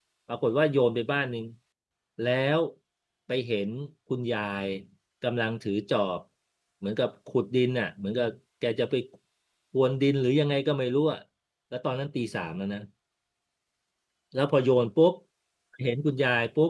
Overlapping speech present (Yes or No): No